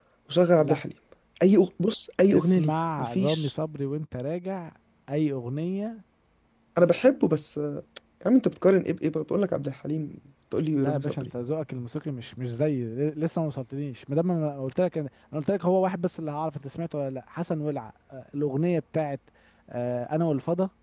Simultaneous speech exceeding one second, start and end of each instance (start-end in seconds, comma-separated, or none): 2.3-3.5